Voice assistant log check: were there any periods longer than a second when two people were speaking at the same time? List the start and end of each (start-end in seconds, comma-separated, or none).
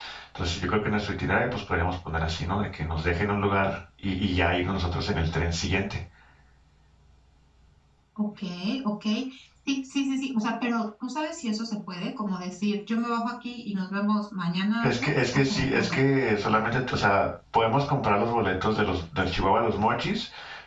14.8-16.0